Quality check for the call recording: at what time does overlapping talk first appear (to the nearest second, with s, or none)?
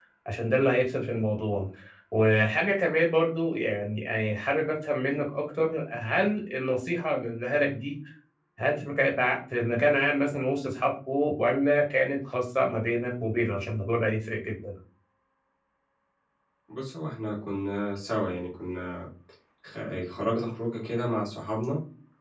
none